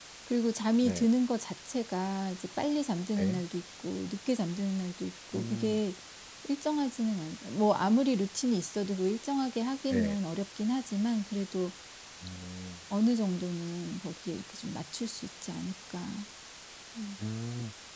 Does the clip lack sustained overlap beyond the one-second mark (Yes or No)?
Yes